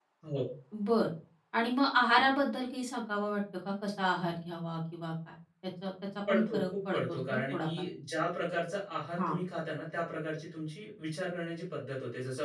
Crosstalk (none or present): present